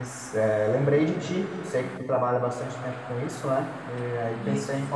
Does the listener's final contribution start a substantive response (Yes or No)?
No